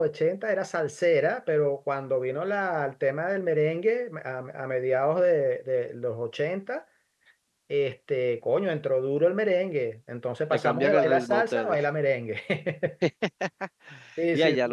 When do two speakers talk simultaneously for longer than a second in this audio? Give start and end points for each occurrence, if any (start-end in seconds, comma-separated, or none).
10.5-11.8